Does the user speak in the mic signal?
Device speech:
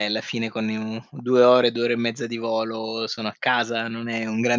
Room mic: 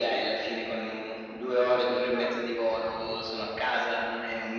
Yes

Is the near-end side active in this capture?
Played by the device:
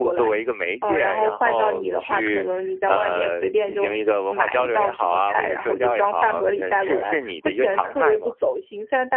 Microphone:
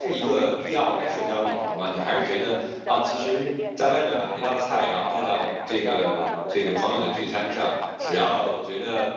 Yes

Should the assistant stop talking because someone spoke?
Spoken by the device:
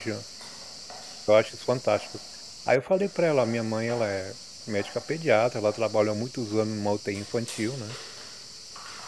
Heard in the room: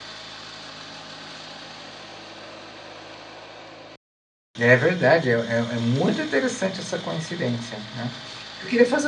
Yes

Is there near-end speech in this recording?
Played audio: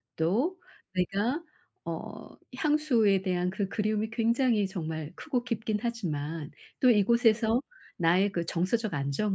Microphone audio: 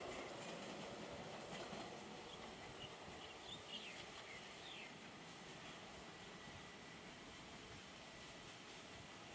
No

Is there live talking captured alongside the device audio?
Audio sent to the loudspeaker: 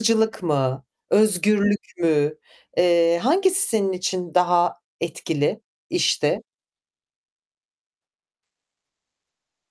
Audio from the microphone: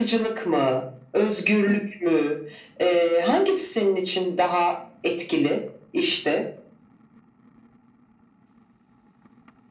No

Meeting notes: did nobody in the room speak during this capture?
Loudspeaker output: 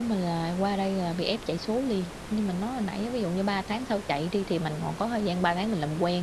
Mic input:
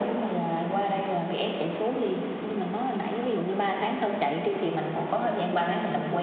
Yes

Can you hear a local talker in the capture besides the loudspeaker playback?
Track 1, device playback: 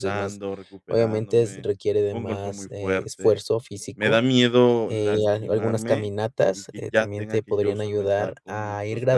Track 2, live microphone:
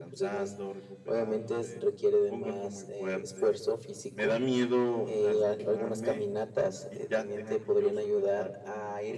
No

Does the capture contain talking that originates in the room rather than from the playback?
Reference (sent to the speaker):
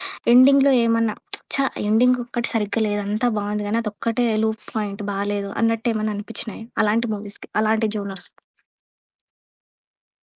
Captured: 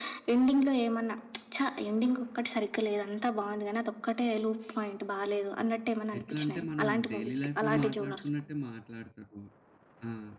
Yes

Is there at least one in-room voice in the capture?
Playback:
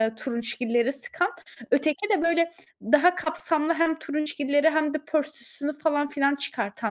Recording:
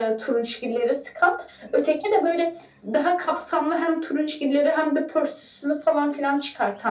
No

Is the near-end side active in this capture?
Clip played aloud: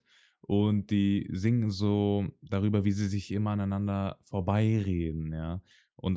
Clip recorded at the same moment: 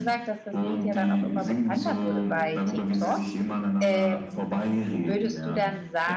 Yes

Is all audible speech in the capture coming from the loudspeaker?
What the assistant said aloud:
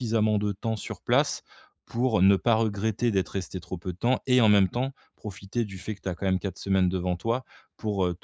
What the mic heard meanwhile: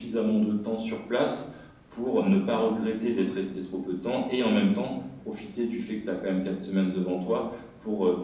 Yes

